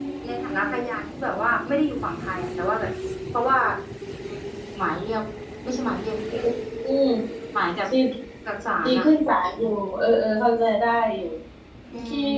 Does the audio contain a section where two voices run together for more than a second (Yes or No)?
No